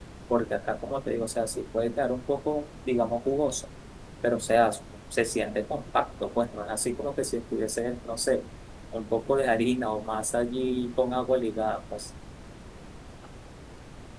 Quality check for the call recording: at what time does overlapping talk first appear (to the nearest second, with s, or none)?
none